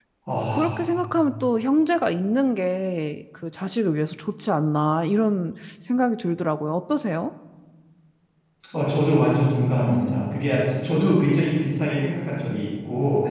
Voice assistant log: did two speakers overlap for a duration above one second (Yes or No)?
No